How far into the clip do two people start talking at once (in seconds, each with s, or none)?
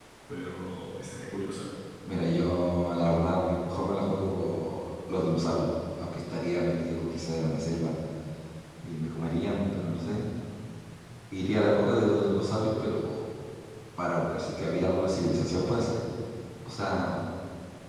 none